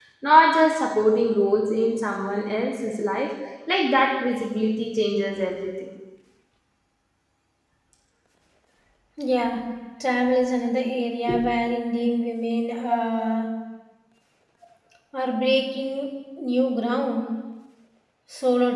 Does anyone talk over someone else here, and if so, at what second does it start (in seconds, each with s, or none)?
none